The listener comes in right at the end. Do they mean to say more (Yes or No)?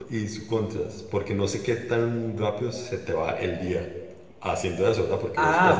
Yes